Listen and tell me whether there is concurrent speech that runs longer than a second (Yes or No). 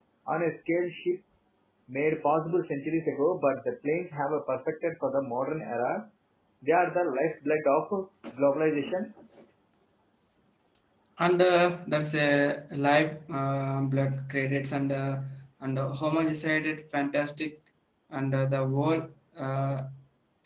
No